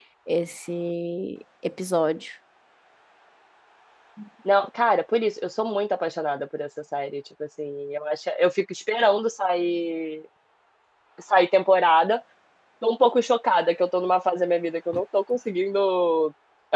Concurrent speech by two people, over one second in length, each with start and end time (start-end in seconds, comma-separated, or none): none